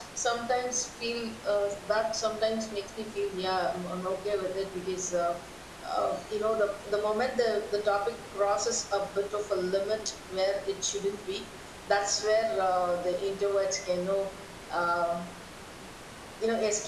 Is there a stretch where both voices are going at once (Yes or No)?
No